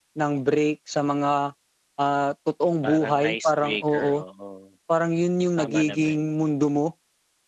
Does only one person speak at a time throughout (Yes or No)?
No